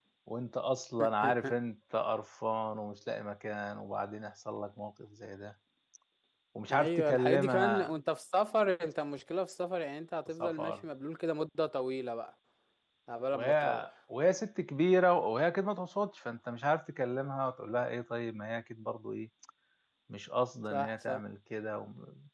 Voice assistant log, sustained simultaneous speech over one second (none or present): present